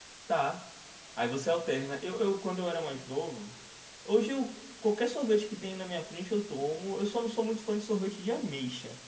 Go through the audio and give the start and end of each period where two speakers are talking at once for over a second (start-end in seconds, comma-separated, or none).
none